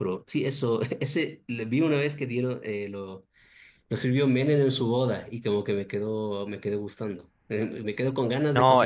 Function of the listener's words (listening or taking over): taking over